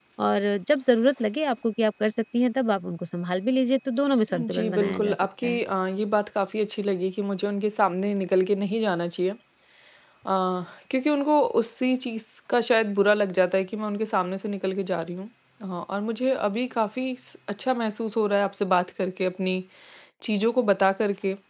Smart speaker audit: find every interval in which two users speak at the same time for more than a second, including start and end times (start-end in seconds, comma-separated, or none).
4.3-5.6